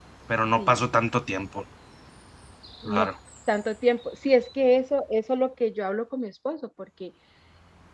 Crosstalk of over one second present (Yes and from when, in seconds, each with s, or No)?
No